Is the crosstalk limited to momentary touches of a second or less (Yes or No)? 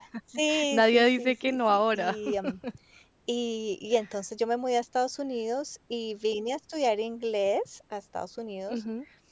No